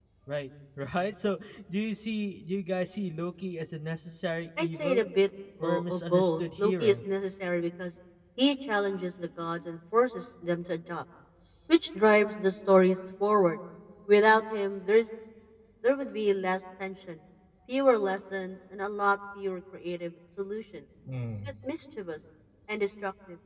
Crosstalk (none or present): present